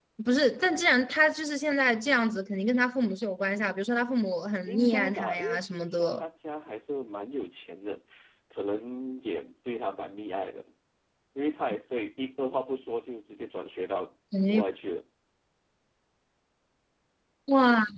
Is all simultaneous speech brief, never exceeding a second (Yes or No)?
No